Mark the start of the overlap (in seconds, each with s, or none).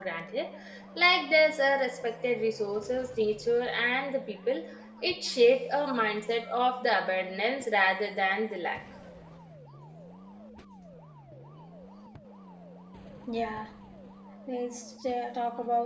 none